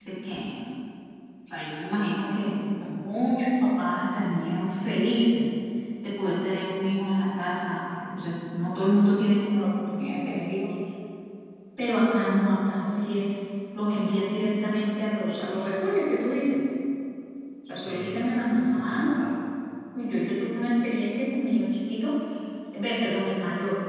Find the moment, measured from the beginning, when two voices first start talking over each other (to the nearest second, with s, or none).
18 s